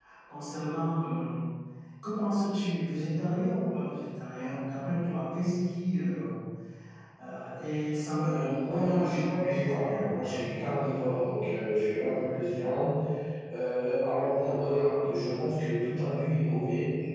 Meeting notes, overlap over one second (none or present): present